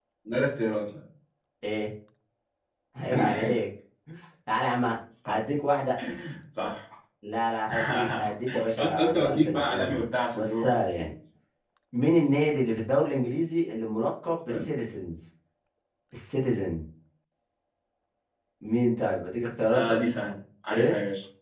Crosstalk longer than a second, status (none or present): present